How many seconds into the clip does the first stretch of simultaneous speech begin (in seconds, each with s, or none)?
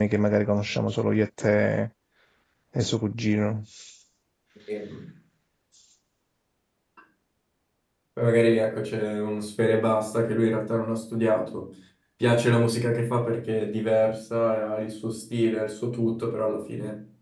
none